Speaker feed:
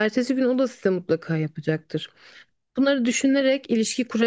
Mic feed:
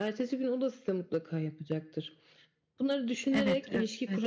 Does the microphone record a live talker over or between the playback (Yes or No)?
Yes